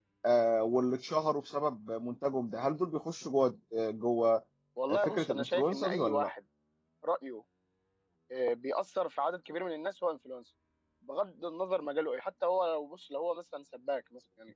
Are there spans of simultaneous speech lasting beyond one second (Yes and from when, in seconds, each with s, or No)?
Yes, from 5.0 s